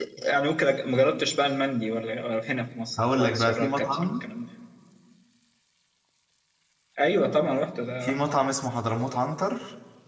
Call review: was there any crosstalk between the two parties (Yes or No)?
Yes